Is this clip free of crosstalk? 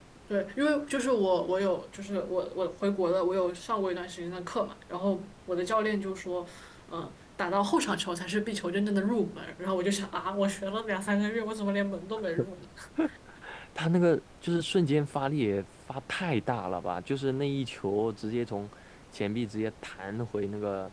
Yes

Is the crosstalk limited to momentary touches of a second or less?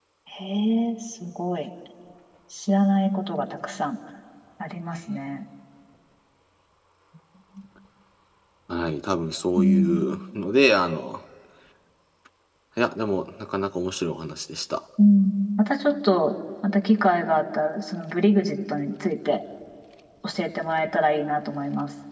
Yes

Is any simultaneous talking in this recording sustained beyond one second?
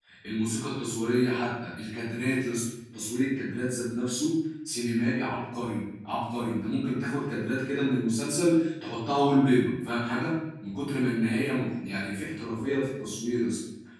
No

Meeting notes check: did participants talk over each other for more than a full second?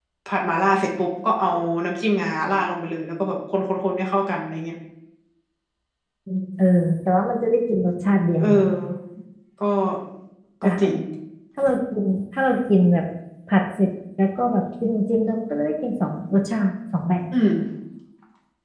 No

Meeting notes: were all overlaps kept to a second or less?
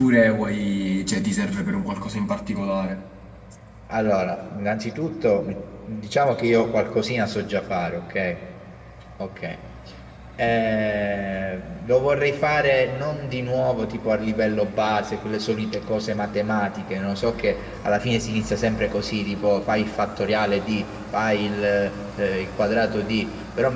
Yes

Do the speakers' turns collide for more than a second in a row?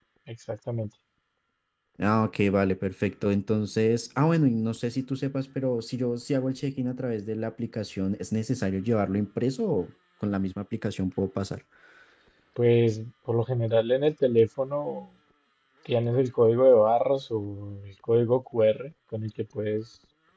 No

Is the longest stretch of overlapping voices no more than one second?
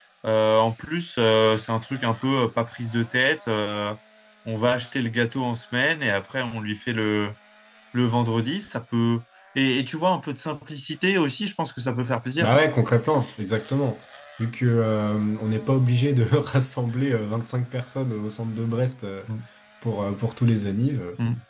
Yes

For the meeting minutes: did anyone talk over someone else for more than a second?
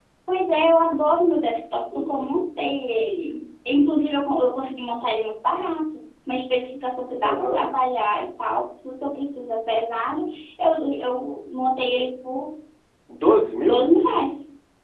No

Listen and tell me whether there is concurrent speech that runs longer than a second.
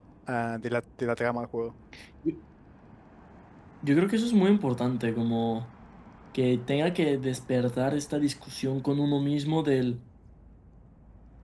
No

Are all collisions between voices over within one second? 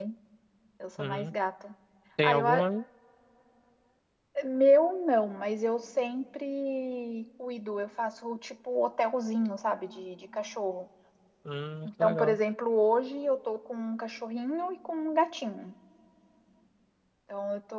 Yes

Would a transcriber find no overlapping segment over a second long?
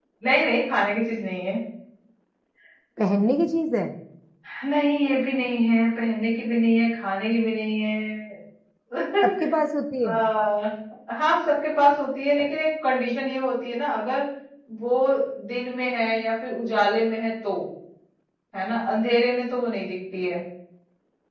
Yes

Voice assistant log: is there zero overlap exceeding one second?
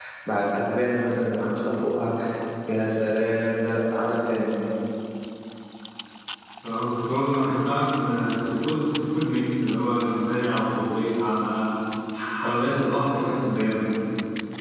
Yes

